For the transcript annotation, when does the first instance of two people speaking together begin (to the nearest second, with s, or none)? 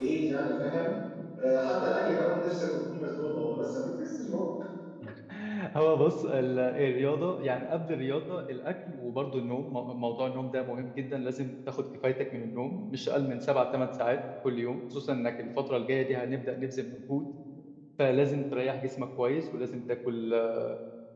none